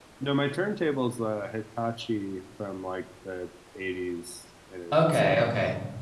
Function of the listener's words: taking over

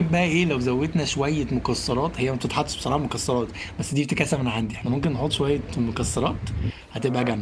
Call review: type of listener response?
taking over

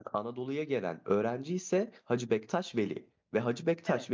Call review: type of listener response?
listening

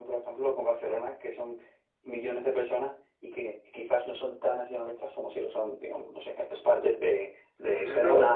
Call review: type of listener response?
taking over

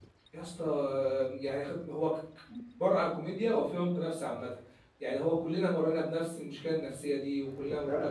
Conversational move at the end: taking over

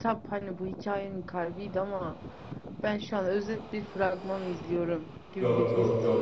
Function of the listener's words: taking over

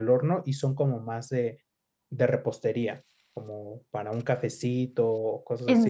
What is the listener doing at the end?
taking over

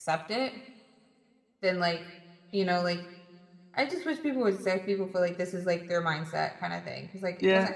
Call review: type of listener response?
taking over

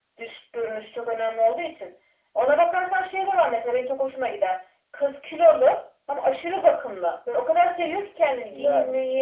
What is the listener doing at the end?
listening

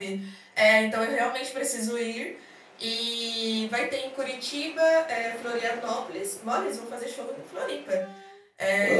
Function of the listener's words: listening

